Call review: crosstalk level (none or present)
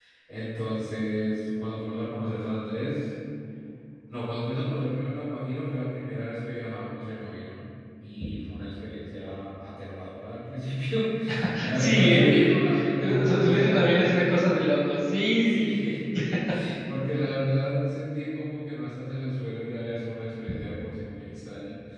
present